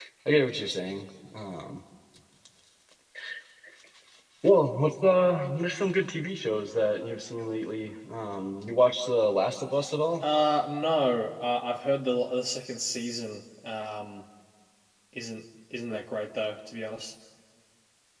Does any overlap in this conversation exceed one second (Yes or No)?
No